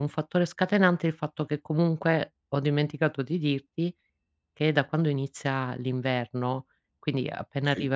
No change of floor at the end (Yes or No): Yes